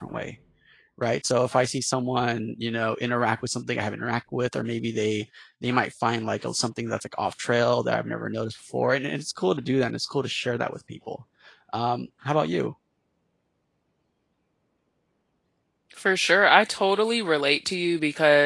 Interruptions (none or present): none